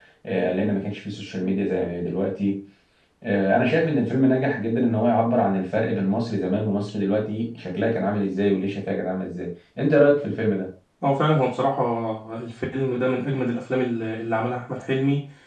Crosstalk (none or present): none